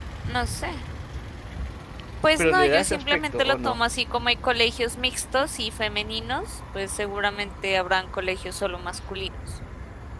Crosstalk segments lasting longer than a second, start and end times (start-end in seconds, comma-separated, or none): 2.4-3.8